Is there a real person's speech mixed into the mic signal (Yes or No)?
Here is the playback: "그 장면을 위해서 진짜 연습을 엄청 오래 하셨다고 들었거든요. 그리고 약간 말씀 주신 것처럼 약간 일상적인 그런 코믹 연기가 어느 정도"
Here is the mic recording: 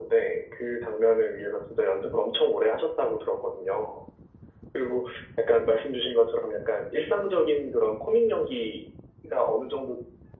No